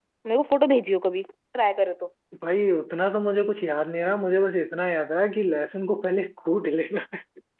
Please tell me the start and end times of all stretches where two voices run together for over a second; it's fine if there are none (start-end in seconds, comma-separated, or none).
none